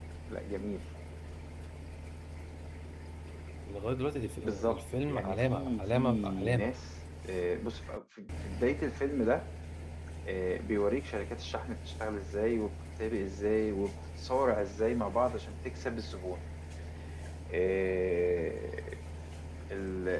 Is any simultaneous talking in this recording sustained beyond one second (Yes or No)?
Yes